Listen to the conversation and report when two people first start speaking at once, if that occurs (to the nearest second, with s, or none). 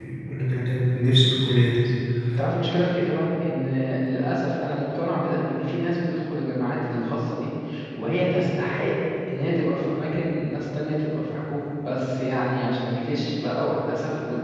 none